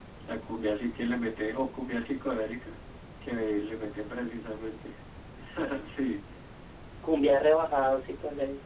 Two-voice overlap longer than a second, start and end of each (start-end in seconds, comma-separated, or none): none